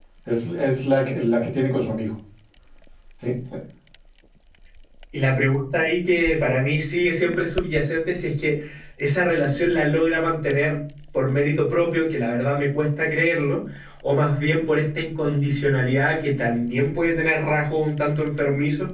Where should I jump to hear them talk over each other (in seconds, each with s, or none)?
none